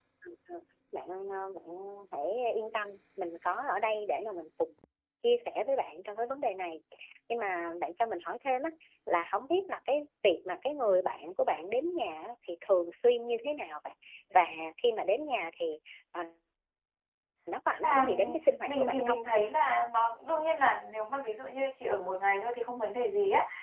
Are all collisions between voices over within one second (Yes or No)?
Yes